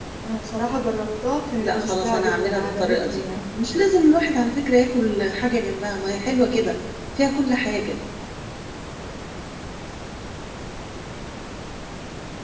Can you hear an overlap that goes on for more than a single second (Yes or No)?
Yes